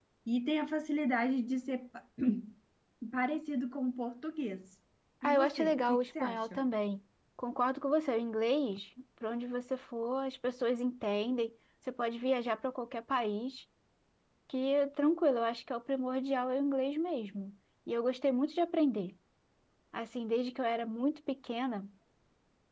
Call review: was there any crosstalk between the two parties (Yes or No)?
Yes